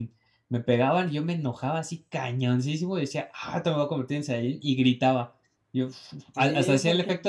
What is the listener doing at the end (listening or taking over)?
taking over